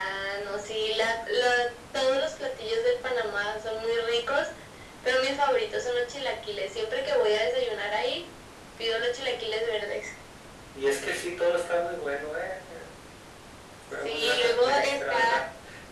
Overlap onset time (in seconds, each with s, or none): 14.0 s